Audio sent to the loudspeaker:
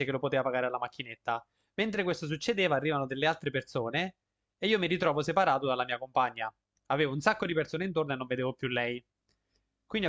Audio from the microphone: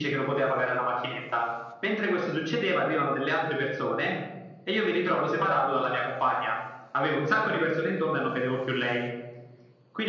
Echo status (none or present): present